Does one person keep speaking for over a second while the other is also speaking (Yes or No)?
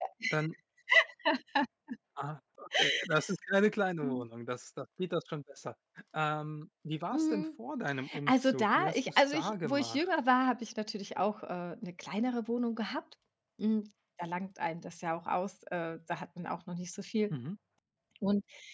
Yes